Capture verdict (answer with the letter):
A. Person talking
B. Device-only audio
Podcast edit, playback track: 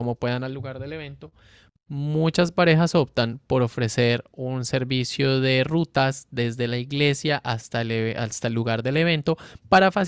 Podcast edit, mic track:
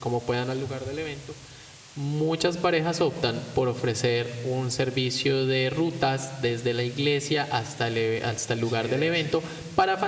A